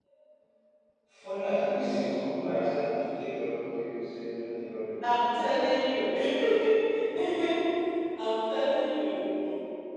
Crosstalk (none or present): none